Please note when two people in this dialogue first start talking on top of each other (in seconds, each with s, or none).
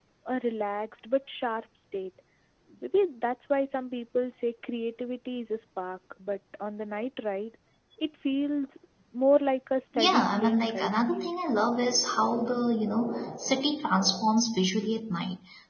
10.0 s